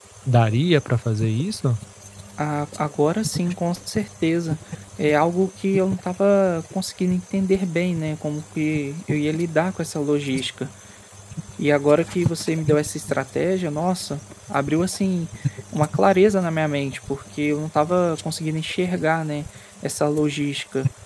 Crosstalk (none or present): none